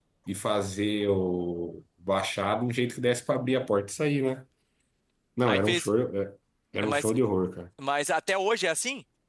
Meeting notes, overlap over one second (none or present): none